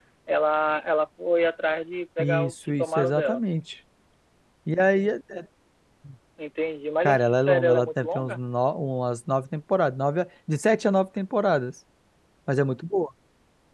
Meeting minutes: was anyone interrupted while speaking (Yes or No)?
Yes